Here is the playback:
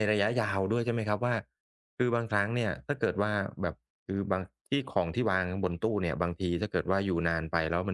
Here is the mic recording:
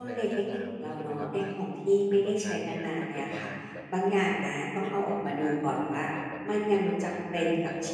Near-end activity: present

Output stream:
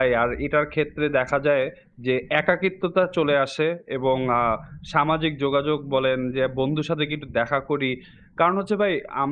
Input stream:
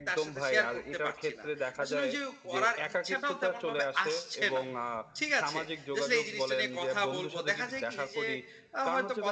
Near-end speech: present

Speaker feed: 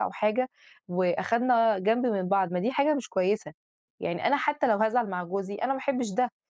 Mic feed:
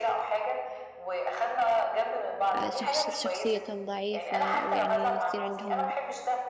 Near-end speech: present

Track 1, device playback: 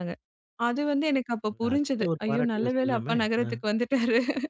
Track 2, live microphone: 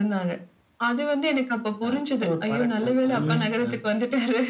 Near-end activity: present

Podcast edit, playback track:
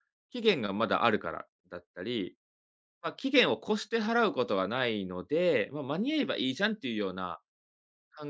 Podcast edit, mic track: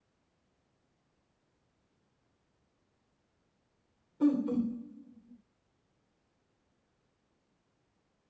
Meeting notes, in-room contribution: present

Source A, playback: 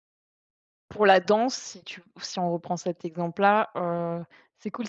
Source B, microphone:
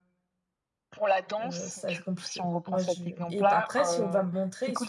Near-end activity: present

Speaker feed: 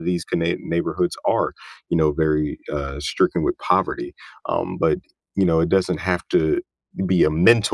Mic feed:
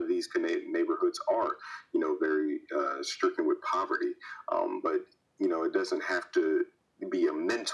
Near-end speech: none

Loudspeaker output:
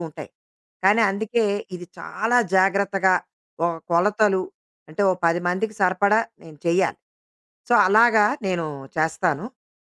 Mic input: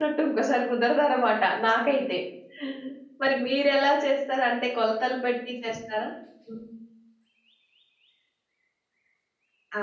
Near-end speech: present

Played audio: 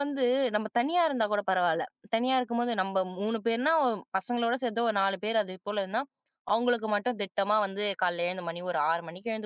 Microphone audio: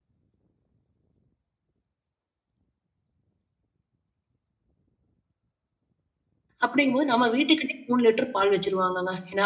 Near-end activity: present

